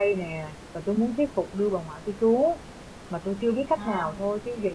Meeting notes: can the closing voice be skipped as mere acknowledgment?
Yes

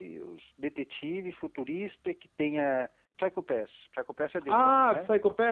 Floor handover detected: Yes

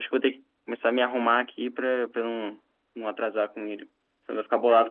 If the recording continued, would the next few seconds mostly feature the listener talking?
Yes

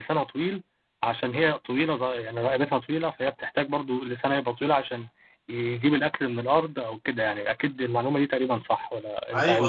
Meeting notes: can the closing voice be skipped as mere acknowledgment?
No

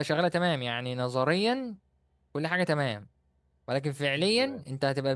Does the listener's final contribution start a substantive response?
No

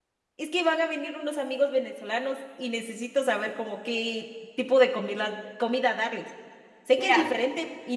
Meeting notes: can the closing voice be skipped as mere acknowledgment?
Yes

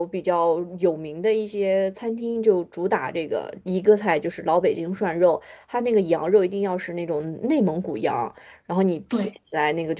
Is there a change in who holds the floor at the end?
No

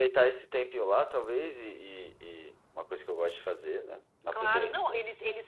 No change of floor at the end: No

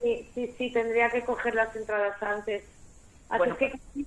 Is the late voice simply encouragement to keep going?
Yes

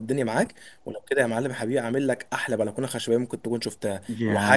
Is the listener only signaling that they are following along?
No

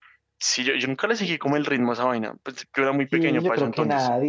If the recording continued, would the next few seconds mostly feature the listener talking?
Yes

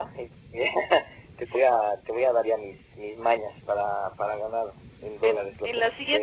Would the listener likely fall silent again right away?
No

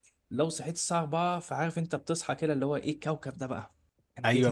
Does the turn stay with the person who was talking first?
No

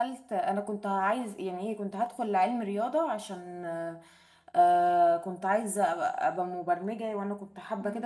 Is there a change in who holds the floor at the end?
Yes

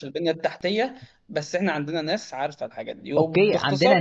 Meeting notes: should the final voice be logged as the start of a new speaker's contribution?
Yes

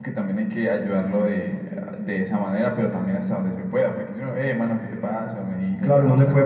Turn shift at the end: Yes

